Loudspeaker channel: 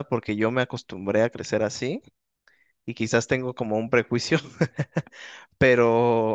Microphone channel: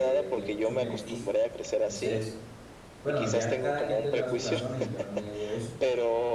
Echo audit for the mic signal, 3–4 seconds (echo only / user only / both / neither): both